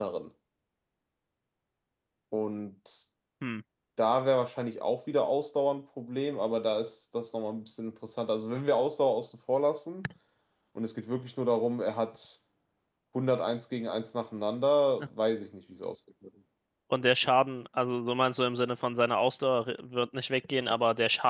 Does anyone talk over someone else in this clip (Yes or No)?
No